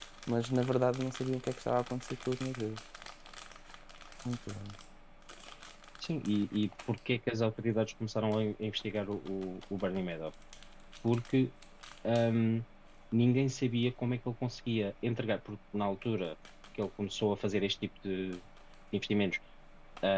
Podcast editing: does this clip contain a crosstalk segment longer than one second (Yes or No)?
No